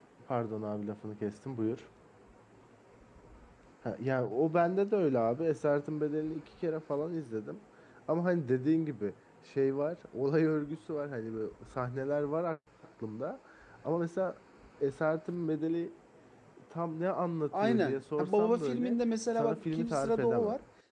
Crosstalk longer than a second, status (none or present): present